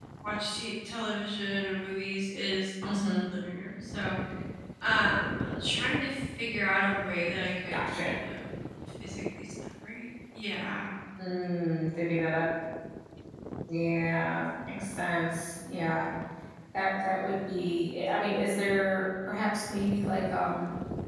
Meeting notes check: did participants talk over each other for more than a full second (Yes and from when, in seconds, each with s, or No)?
No